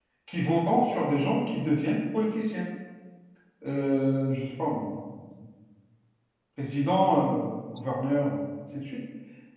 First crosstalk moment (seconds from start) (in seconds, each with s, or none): none